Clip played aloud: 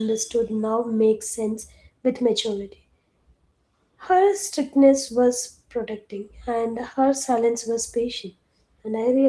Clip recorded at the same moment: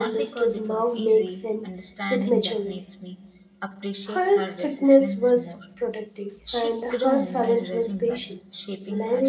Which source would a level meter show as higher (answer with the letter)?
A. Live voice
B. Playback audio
B